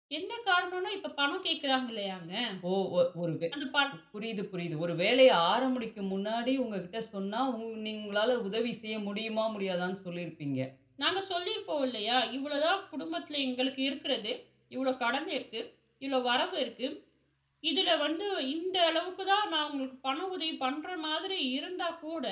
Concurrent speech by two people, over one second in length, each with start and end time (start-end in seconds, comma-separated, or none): none